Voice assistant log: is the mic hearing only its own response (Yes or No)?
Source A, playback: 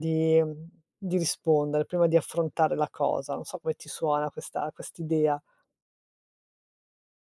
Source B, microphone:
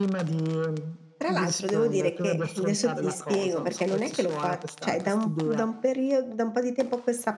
No